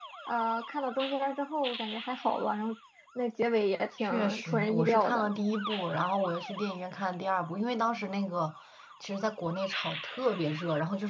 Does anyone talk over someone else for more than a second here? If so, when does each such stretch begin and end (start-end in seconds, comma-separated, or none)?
4.0-5.3